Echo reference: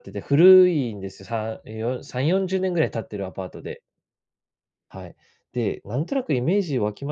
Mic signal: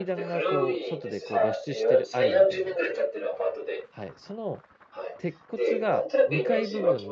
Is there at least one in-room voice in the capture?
Yes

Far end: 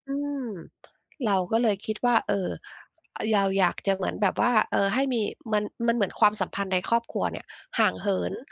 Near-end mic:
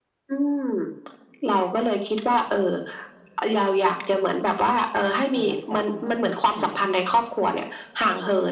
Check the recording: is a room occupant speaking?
Yes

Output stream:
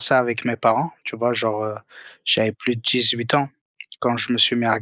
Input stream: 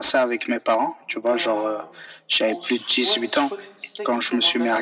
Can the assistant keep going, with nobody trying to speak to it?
No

